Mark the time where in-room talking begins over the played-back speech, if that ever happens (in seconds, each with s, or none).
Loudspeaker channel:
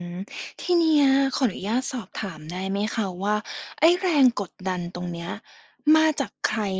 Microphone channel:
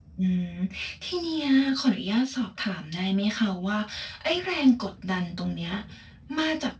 none